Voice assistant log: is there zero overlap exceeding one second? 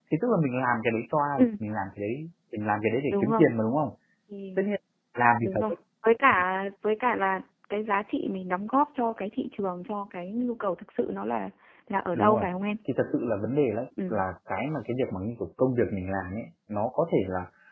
Yes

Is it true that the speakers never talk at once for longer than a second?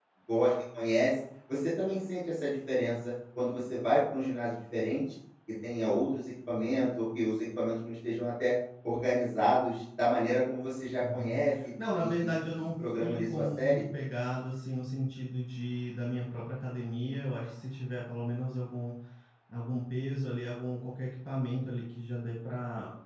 No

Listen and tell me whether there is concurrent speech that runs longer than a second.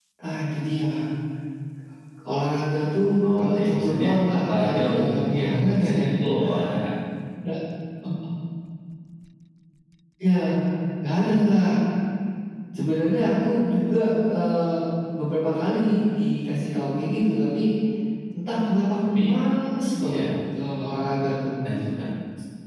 Yes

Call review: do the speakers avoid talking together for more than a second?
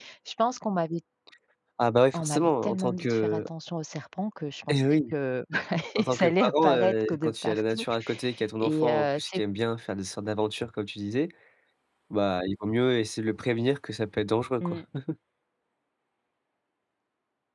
No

